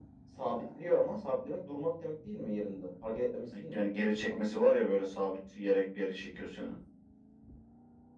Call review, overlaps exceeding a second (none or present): none